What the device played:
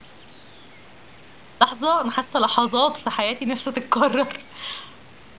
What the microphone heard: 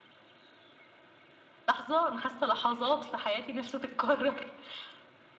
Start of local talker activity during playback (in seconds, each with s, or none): none